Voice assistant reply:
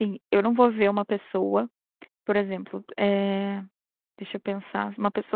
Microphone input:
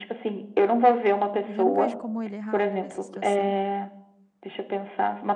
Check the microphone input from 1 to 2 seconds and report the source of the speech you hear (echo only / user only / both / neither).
both